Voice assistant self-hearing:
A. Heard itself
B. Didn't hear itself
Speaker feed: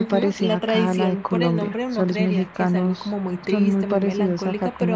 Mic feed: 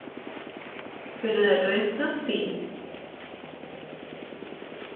B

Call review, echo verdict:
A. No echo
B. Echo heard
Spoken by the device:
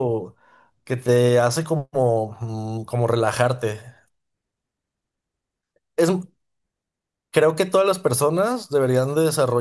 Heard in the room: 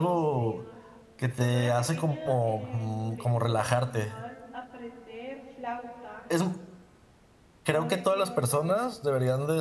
B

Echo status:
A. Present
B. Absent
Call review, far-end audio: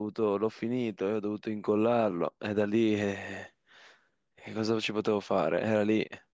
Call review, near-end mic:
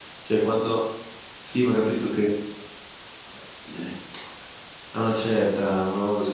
B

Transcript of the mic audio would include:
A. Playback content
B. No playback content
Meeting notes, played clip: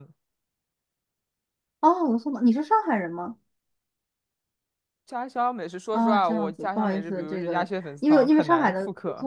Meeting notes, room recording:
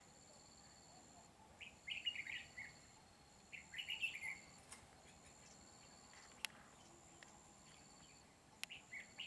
B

